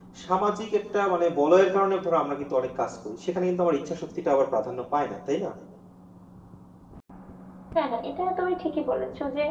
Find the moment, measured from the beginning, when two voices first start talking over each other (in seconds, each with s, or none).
none